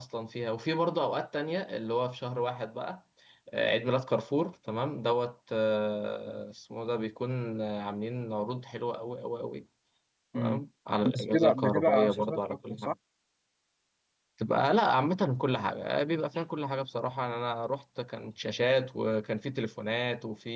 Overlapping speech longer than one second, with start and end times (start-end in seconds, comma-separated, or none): 11.1-12.9